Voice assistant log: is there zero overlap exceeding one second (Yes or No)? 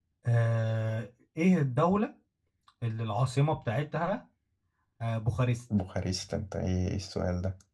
Yes